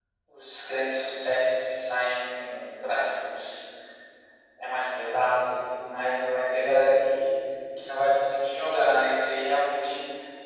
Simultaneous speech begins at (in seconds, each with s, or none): none